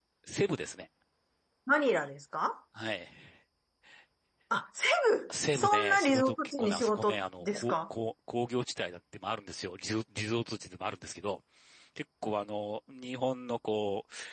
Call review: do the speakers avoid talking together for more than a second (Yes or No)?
No